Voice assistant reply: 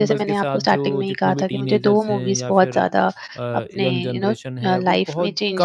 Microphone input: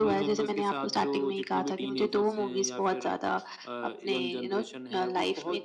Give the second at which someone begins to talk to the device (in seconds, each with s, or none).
none